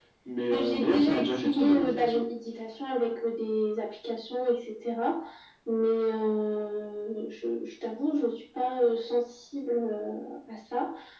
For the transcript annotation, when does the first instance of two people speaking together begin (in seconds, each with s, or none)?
0.5 s